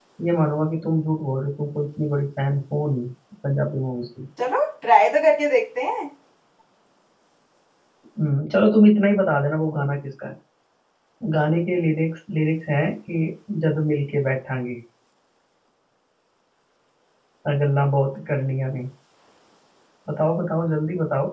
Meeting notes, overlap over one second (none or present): none